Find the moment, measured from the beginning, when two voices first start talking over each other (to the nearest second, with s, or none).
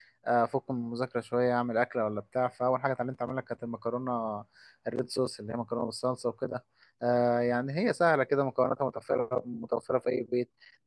none